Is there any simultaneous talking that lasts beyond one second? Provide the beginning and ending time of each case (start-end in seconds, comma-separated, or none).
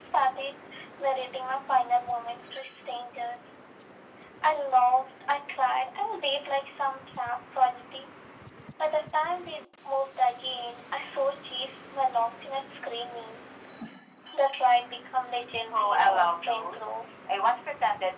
15.7-16.9